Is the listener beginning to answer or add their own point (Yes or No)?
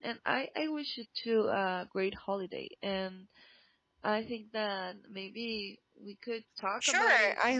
Yes